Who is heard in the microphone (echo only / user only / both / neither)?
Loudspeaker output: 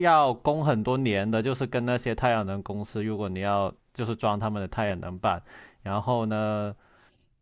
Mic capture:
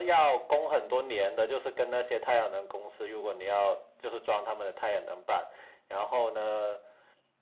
echo only